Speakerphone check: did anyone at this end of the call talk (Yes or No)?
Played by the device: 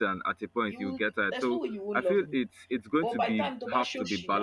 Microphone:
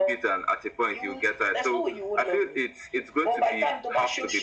No